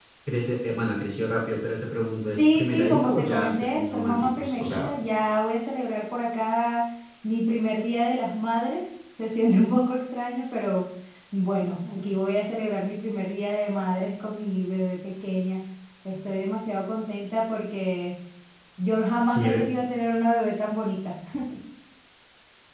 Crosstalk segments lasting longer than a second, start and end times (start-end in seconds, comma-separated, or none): 2.4-4.9